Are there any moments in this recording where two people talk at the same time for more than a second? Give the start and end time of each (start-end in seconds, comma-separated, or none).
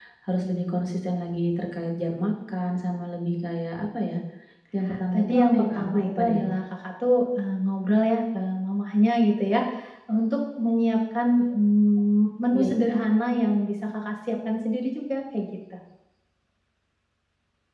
5.1-6.4